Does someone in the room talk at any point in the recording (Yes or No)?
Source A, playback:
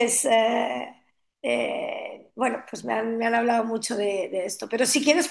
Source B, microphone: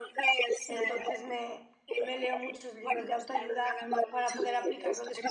Yes